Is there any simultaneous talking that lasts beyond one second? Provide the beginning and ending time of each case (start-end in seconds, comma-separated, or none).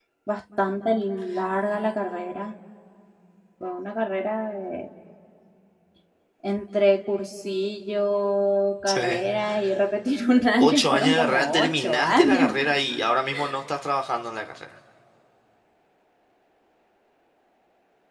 10.6-12.5